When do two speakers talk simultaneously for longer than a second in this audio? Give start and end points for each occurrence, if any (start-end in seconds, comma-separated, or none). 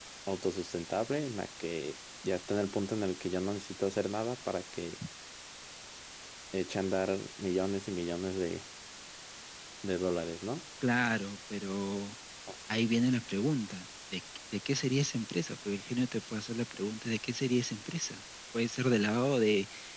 none